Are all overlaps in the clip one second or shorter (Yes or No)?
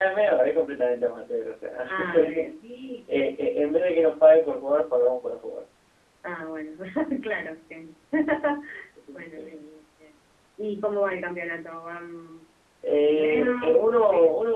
No